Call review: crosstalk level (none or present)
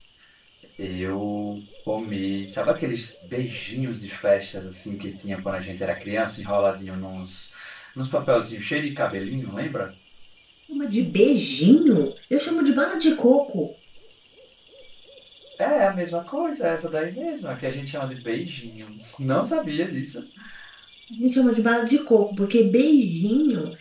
none